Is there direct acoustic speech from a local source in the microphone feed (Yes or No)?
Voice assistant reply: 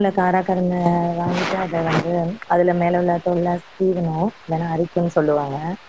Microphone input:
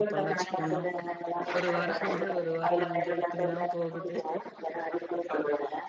Yes